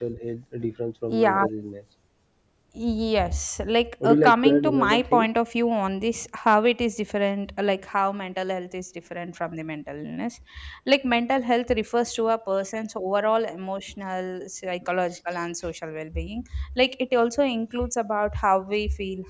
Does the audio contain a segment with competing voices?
Yes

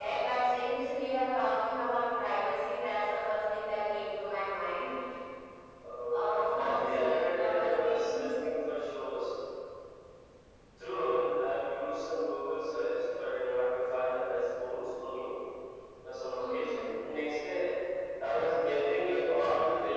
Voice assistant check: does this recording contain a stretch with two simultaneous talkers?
Yes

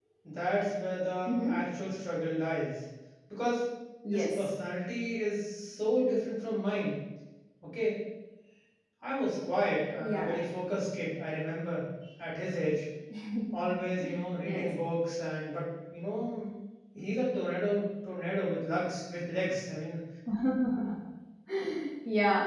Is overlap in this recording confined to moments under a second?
Yes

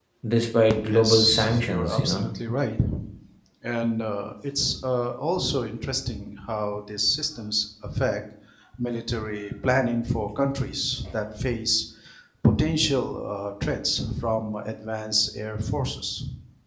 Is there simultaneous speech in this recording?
Yes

